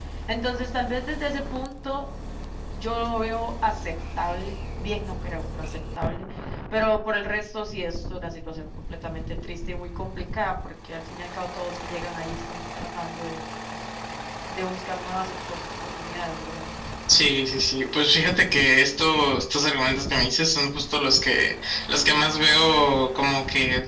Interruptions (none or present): none